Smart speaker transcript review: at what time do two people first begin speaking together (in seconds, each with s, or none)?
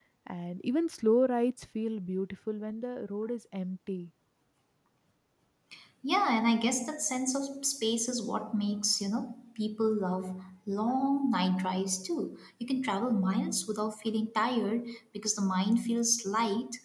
none